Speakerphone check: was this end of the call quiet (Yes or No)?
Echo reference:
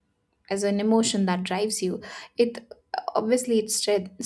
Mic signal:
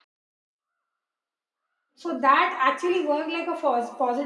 No